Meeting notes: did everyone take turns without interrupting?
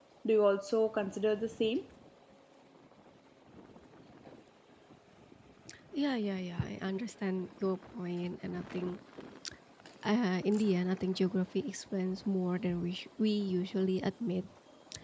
Yes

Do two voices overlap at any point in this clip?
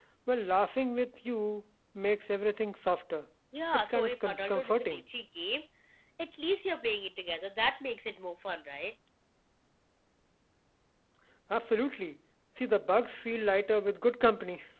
Yes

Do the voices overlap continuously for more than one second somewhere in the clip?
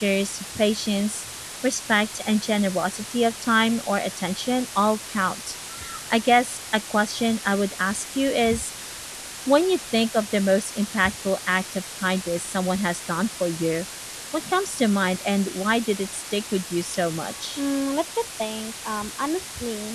No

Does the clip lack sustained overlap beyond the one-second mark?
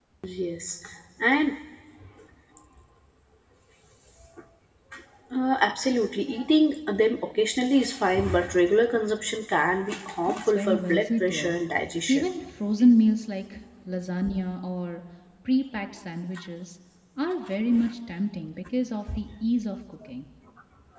No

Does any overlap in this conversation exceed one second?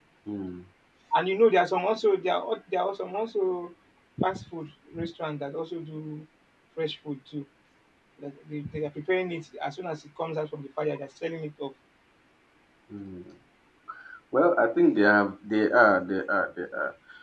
No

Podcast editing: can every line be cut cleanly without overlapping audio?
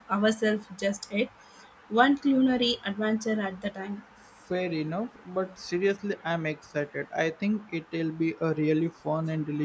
Yes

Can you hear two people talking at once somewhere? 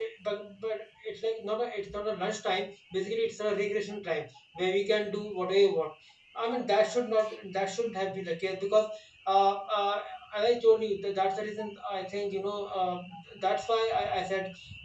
No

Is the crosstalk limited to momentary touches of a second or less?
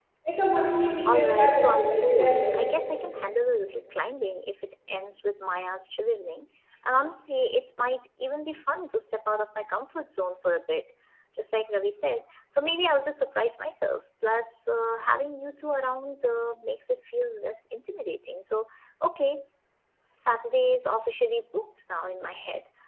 No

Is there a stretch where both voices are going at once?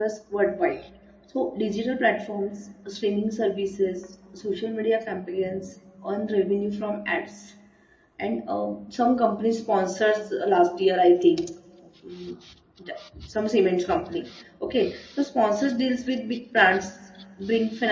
No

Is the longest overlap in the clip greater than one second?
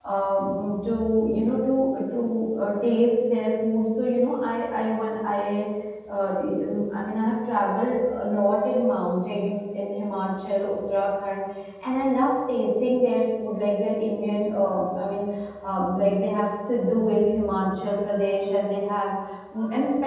No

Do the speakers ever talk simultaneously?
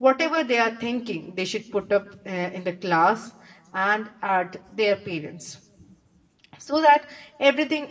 No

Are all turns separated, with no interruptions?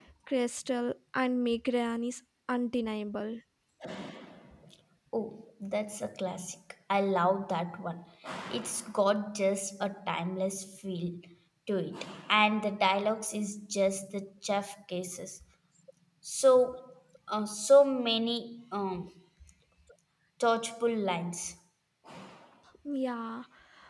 Yes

